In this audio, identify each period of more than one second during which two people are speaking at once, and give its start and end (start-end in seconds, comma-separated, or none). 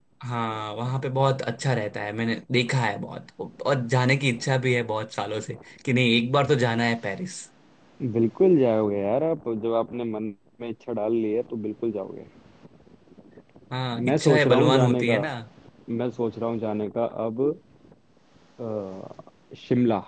14.1-15.2